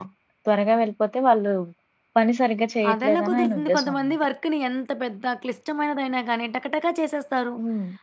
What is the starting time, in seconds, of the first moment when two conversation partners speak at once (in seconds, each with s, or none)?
2.9 s